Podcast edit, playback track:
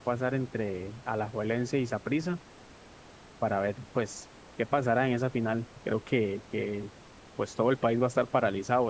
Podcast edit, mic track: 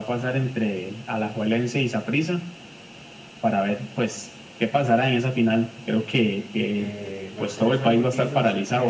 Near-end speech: present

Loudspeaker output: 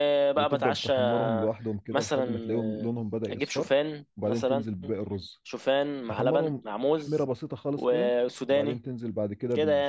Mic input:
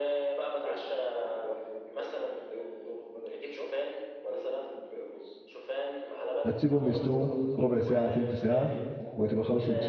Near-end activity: present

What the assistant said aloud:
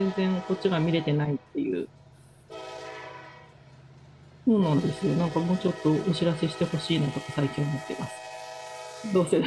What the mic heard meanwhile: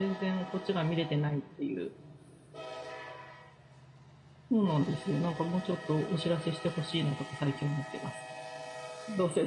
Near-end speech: none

